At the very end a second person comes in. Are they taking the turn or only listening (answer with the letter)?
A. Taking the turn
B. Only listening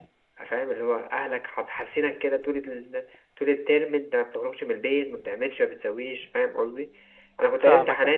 B